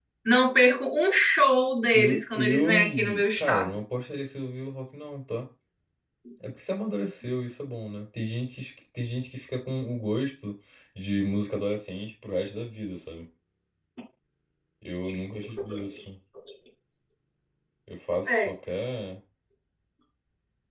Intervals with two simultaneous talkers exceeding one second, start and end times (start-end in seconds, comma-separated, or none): 1.9-3.8